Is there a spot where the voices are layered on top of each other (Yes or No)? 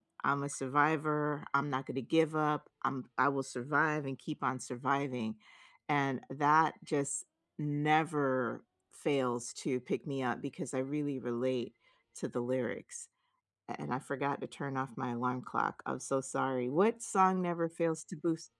No